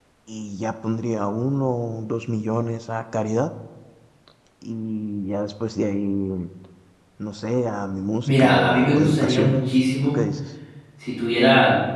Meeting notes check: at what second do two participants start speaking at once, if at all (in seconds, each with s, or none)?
8.2 s